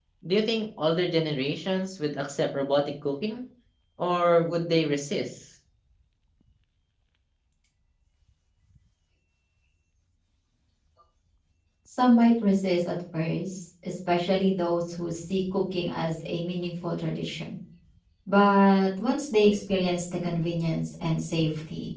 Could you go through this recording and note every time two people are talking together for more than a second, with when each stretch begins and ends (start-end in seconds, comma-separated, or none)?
none